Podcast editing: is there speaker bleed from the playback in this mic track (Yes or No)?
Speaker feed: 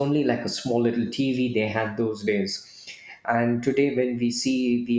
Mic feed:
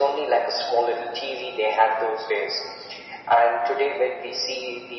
Yes